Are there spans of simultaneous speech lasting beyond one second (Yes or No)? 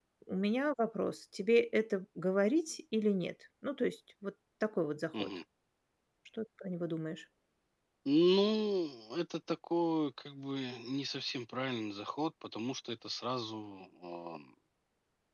No